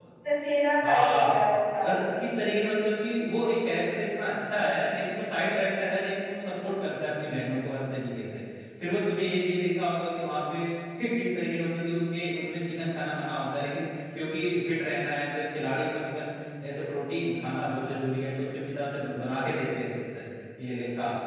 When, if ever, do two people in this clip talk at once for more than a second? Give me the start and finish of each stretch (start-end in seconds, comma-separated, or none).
none